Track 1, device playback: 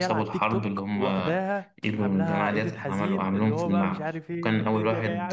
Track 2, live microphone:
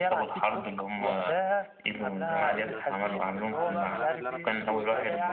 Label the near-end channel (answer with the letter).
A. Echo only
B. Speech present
B